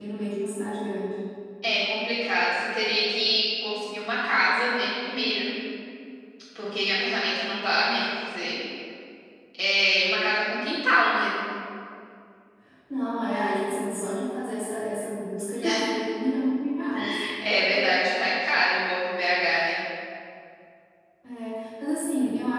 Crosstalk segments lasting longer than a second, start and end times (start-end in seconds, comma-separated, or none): none